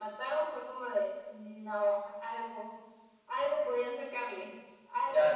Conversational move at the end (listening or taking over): taking over